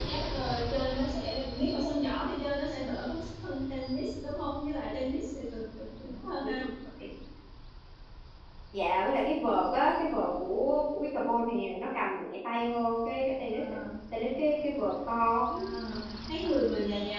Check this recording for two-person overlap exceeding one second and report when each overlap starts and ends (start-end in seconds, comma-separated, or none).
none